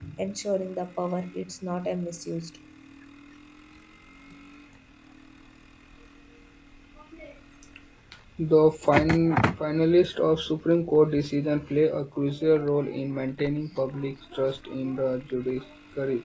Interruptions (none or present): none